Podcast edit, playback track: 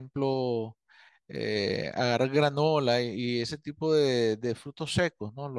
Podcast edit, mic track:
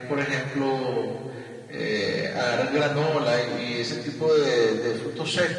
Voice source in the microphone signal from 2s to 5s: echo only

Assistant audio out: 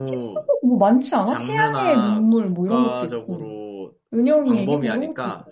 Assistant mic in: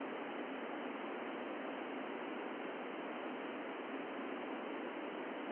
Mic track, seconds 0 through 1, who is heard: neither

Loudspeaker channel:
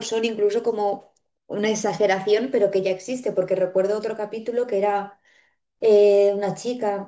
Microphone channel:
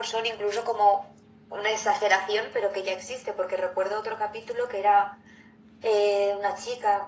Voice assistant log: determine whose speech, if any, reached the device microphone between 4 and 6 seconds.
echo only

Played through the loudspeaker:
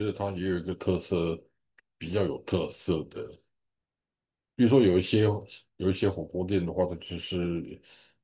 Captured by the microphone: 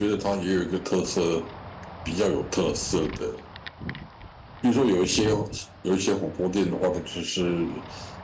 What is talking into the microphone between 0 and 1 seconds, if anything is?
echo only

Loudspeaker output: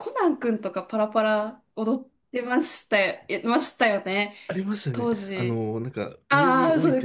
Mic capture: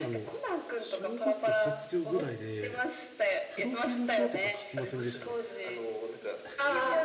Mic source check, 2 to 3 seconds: both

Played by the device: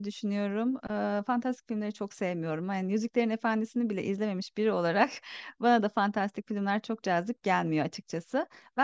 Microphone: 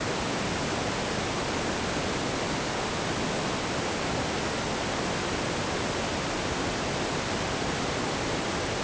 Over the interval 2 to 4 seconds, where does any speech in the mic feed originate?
neither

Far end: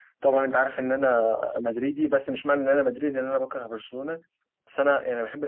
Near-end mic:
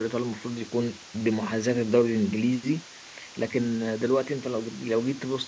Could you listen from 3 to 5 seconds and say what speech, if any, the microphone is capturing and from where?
user only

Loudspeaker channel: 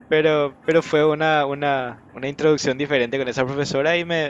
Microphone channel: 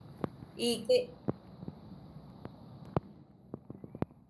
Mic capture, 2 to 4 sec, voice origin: neither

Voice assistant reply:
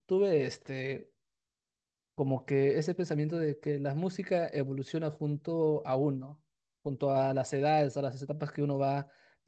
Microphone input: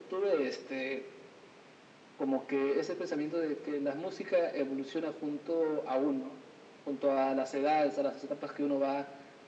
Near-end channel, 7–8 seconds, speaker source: echo only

